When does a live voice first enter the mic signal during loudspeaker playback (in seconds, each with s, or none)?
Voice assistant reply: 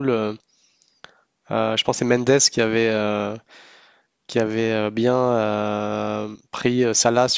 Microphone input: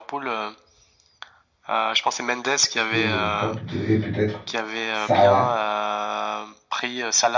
2.7 s